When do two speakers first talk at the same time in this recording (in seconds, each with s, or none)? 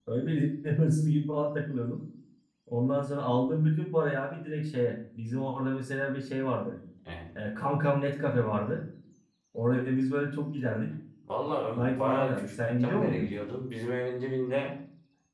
11.7 s